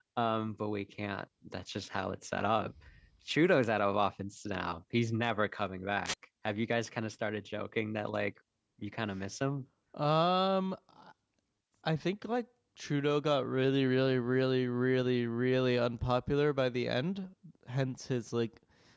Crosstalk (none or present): none